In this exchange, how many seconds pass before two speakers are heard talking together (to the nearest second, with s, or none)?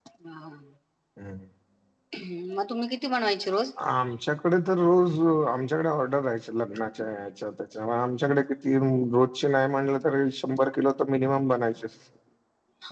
none